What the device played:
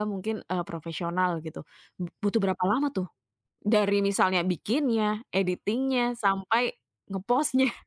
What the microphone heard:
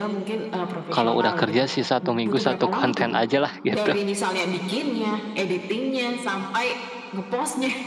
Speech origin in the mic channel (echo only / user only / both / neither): both